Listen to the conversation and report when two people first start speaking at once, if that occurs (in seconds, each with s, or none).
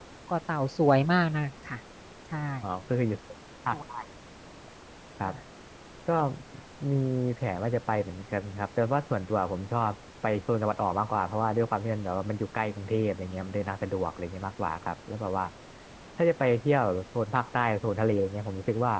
none